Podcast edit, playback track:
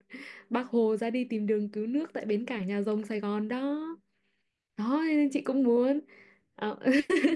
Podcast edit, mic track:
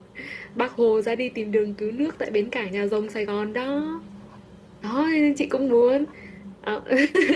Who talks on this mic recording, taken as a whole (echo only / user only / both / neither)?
echo only